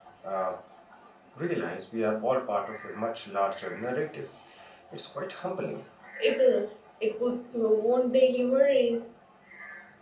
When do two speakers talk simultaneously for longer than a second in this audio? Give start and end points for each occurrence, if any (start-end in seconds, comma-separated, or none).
none